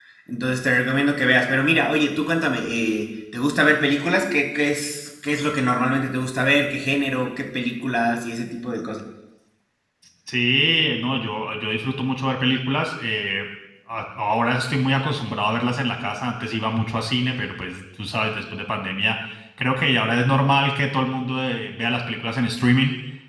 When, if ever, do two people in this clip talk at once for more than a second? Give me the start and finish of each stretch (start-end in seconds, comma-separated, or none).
none